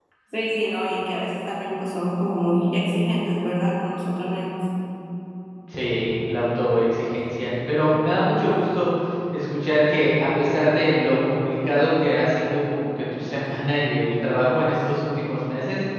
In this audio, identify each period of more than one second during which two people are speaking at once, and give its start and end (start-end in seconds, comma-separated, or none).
none